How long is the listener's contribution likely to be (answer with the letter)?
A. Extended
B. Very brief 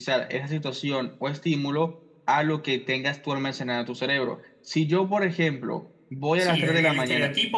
A